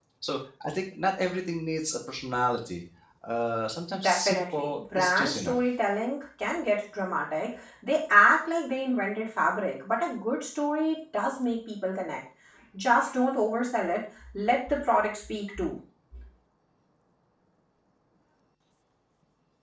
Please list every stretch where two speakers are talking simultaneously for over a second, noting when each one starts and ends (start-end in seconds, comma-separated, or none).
4.0-5.6